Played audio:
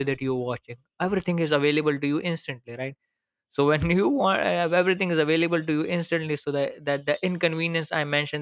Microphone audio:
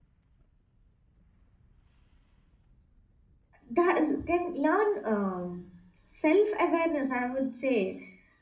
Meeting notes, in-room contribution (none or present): present